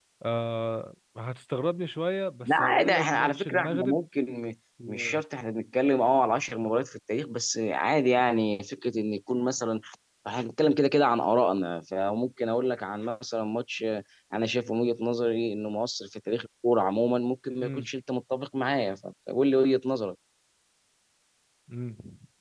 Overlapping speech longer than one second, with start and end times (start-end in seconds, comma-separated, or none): 2.4-4.0